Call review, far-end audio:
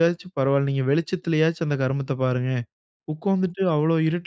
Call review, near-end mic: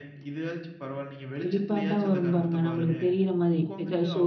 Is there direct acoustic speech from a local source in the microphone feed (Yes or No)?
Yes